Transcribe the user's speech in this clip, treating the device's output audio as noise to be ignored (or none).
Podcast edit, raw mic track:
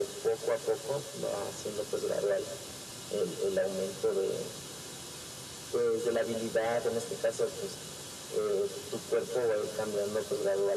none